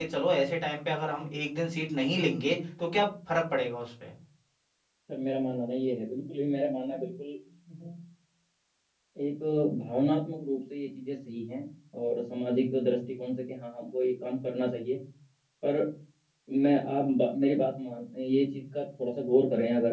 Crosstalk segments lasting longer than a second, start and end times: none

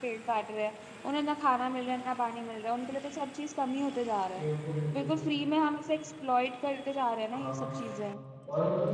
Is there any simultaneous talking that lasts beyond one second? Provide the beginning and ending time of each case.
none

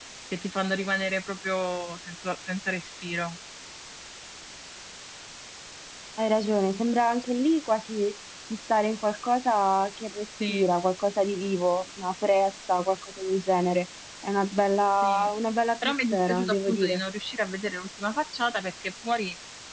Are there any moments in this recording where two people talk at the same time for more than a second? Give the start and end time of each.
15.8-17.0

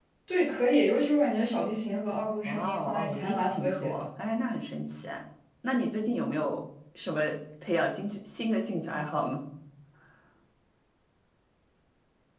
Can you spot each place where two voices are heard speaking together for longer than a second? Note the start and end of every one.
2.5-4.0

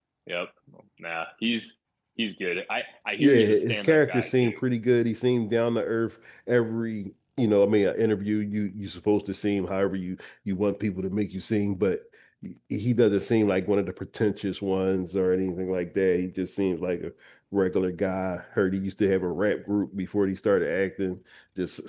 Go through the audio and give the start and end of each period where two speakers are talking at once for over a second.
3.2-4.6

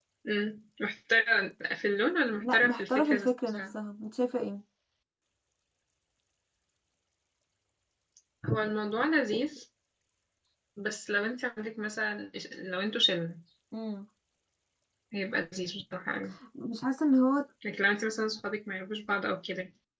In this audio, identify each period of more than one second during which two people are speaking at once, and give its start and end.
2.4-3.8

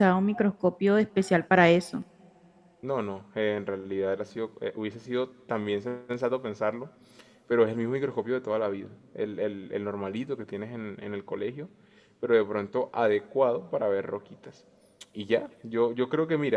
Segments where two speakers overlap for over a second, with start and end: none

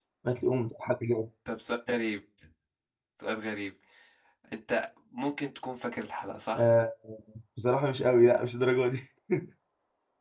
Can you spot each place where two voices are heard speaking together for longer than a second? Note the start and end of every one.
none

